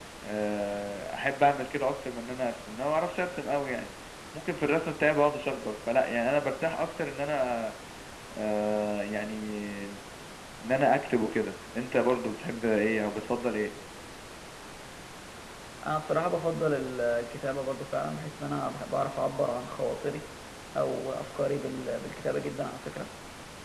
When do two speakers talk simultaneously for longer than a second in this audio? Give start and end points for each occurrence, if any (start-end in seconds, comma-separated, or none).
none